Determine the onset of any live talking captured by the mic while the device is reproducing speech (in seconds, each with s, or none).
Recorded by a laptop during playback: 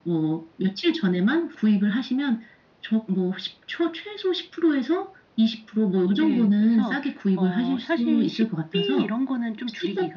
6.1 s